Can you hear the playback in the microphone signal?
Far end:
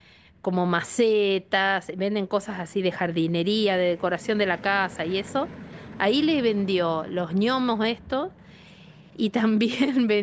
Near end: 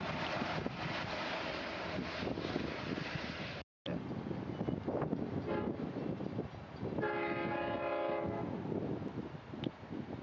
No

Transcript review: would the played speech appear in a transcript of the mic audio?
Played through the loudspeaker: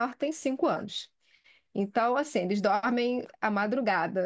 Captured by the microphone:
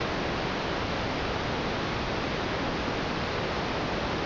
No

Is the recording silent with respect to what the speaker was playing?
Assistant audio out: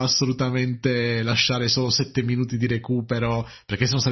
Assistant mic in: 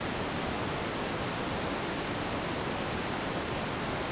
Yes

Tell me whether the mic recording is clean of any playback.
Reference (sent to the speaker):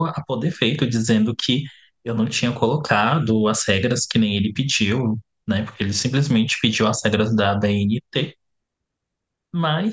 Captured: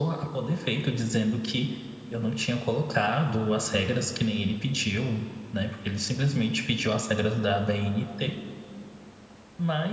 No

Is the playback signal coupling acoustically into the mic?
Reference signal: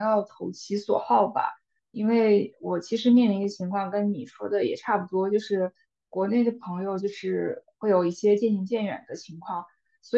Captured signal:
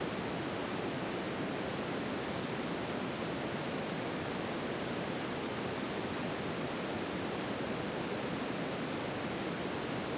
No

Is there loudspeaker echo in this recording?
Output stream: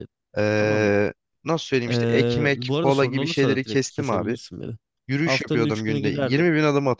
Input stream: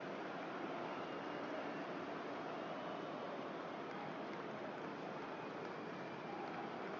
No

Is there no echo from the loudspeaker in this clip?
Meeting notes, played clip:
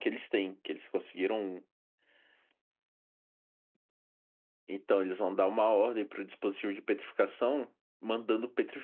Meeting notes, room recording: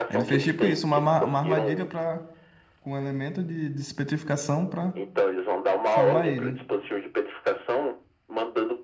No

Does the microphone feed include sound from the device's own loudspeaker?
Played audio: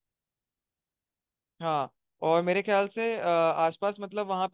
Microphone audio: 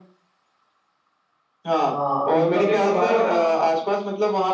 Yes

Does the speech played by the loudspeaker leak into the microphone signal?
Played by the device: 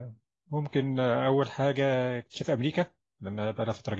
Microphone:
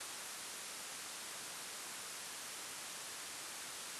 No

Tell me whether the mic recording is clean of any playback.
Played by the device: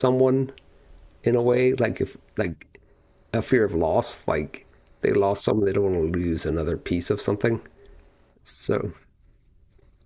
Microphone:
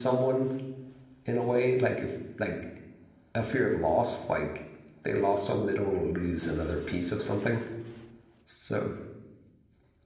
No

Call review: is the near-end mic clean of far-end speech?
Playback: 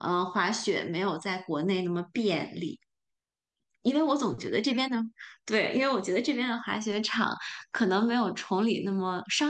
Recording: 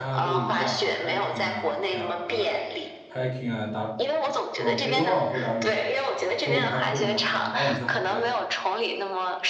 No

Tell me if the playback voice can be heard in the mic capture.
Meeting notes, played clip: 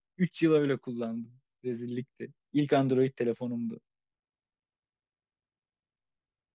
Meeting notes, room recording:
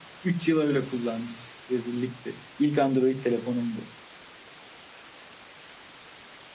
Yes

